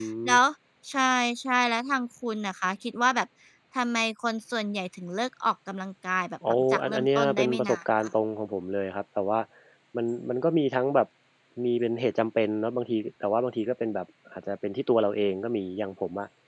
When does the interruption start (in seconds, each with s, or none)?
6.4 s